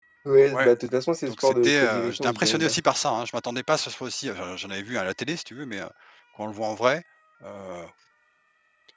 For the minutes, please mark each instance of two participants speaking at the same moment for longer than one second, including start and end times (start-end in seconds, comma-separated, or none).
1.3-2.8